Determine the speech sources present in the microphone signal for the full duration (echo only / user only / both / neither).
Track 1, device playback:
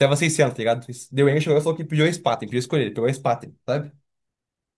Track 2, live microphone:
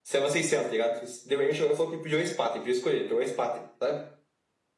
echo only